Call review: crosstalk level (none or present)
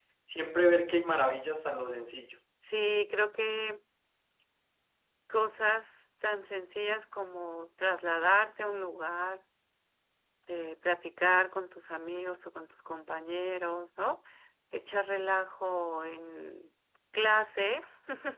none